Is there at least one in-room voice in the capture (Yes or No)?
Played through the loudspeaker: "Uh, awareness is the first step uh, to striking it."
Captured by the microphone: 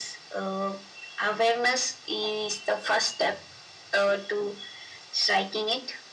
No